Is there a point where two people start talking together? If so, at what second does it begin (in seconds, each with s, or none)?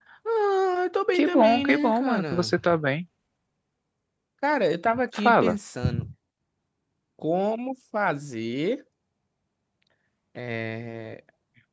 1.2 s